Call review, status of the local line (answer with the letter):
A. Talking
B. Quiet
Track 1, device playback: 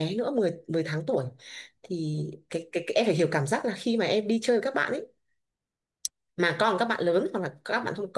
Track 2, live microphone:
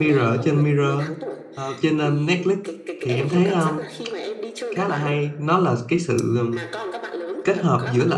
A